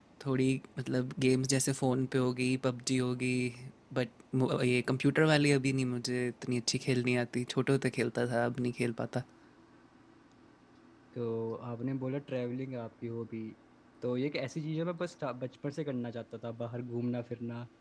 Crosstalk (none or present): none